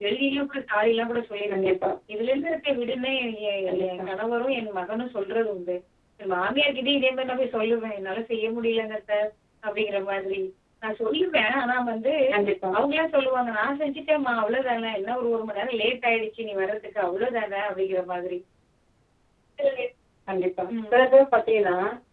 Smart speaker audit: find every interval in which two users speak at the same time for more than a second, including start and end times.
none

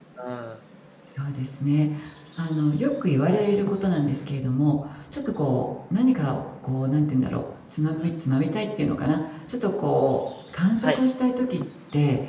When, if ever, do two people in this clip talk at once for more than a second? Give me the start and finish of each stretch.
none

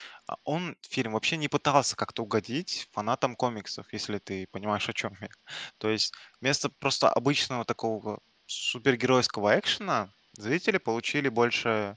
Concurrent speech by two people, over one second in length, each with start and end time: none

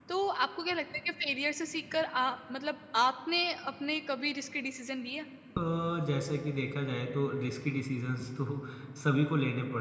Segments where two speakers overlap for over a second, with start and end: none

